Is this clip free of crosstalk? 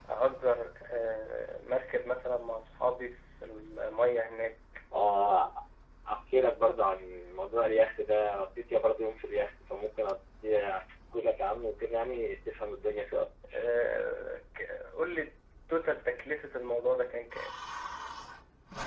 Yes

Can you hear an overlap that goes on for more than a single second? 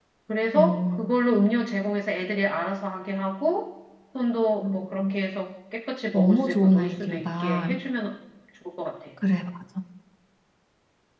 Yes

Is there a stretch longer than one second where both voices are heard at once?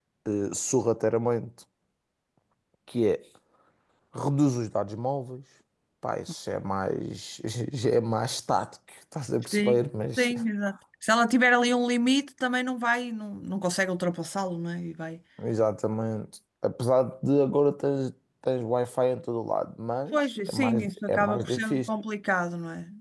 Yes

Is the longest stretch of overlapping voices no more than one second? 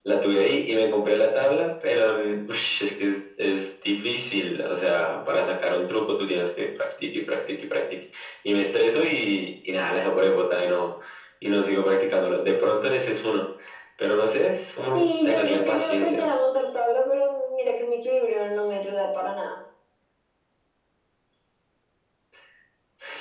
No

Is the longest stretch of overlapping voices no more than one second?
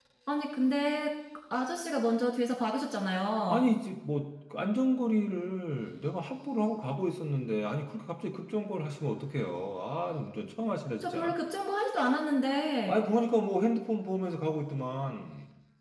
Yes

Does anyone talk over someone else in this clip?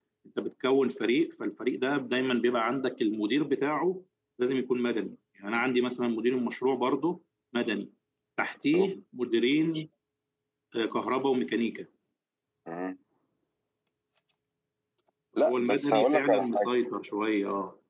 Yes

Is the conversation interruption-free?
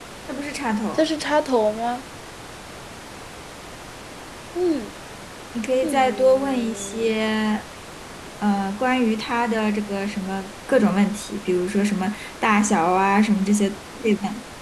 No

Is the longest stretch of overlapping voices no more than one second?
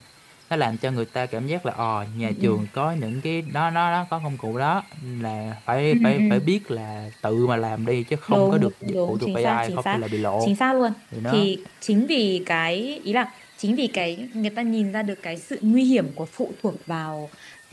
No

